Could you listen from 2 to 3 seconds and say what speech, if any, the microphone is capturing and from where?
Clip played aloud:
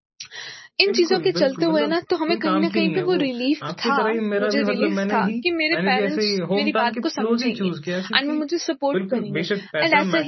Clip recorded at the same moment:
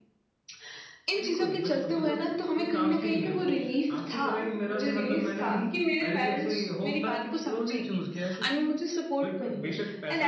echo only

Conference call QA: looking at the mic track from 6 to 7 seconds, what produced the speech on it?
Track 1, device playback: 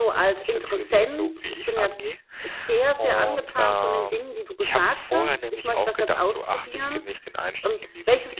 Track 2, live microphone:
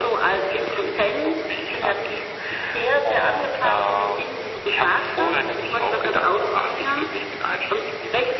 echo only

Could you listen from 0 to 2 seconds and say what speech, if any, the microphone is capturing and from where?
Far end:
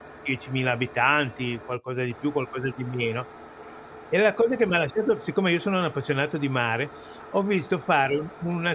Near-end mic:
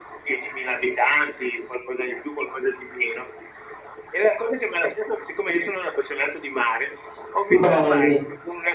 echo only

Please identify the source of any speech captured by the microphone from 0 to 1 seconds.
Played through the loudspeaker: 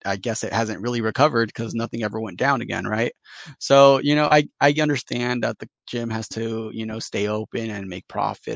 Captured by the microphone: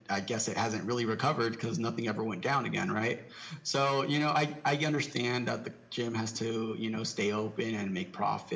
echo only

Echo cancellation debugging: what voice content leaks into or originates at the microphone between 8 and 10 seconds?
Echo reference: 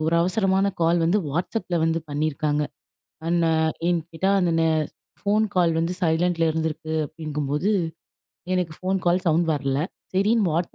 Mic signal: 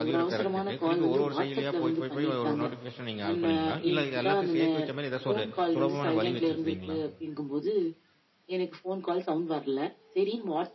echo only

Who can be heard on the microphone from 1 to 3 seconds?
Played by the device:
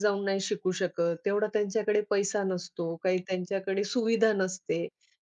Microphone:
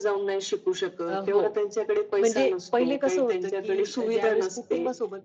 both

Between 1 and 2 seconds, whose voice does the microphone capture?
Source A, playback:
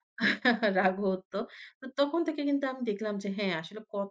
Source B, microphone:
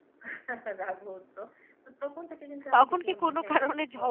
echo only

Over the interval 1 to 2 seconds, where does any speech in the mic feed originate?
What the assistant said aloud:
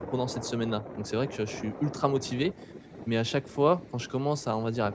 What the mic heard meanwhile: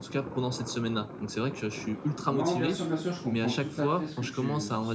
echo only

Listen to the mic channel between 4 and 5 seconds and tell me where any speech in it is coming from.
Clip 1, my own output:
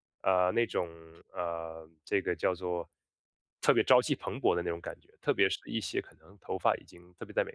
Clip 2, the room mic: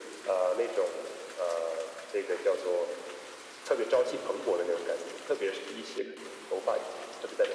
echo only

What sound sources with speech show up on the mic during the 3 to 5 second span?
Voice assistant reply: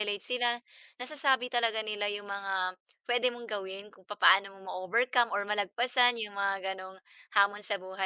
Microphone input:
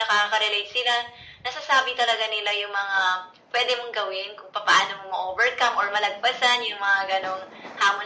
echo only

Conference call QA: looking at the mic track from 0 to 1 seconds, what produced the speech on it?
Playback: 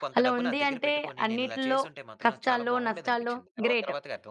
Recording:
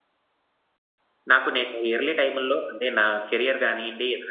neither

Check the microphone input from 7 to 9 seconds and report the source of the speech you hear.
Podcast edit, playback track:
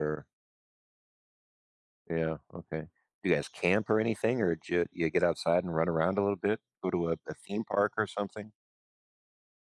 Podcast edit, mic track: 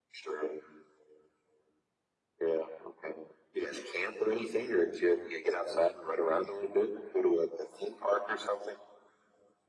echo only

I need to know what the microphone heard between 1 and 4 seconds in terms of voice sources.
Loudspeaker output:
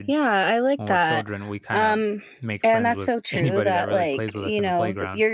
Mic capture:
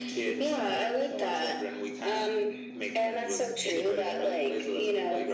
echo only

